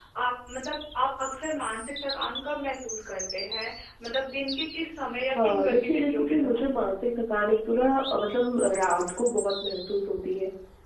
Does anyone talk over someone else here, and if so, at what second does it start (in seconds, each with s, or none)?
5.3 s